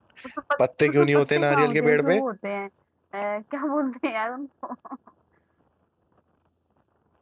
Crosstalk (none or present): present